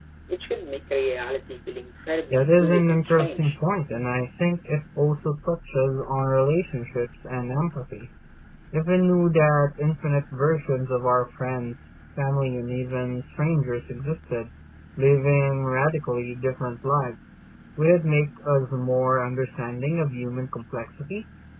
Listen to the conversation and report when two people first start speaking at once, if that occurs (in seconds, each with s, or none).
2.3 s